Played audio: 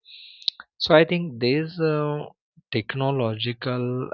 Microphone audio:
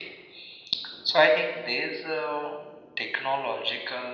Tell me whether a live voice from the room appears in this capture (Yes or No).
No